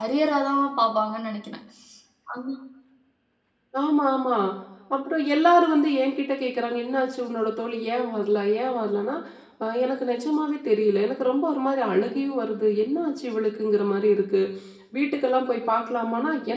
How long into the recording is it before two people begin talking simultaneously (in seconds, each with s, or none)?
none